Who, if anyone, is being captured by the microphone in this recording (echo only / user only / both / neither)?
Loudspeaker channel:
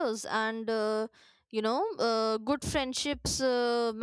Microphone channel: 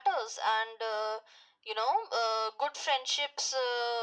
echo only